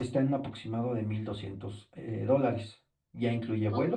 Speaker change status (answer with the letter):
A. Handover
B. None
B